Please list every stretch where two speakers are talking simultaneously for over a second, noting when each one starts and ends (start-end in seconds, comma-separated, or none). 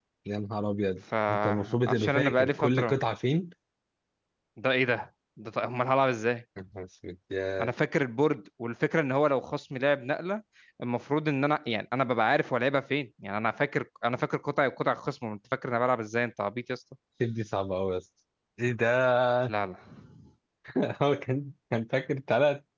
1.3-3.0